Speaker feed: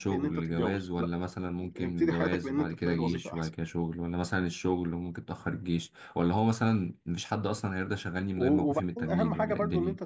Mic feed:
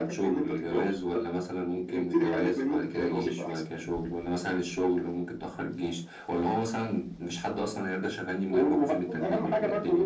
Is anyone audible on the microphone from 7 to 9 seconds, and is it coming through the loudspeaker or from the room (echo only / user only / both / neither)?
echo only